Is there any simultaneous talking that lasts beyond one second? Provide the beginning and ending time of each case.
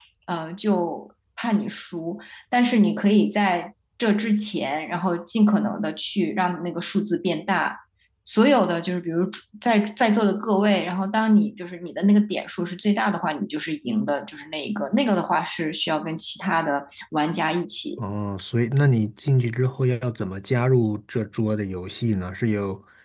none

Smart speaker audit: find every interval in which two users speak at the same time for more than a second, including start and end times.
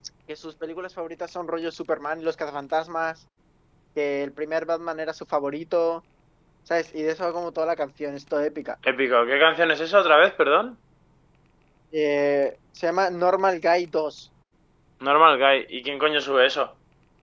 none

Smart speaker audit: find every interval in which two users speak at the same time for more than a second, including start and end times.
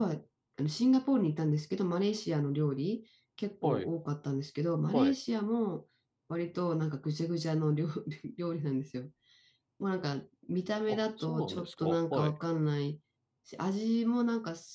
10.9-12.3

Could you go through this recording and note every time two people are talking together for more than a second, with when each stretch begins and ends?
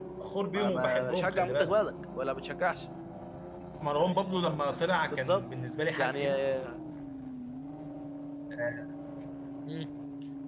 0.5-1.8

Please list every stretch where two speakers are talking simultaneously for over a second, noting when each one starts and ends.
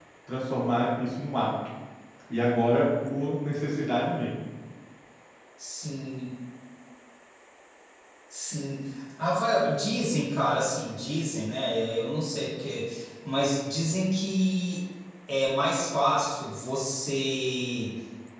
none

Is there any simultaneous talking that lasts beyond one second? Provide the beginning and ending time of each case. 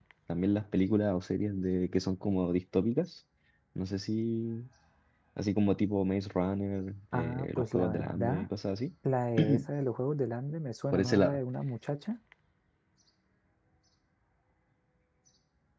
7.1-8.5

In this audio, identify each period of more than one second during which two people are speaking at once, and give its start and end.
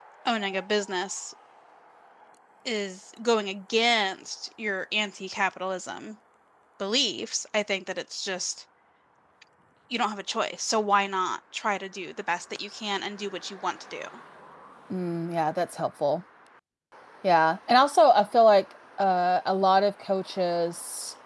none

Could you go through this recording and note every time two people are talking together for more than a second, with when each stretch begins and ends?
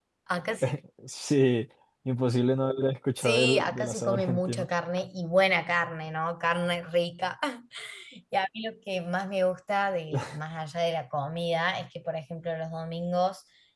3.2-4.7

